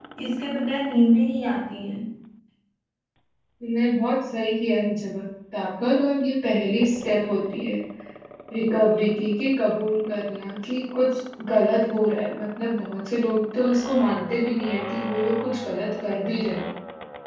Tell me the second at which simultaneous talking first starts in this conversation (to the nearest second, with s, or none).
none